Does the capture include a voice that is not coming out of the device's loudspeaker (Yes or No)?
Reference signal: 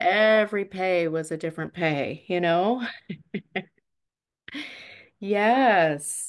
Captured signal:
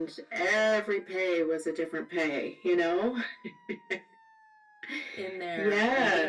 Yes